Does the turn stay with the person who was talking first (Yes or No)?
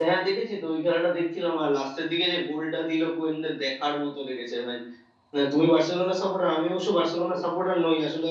Yes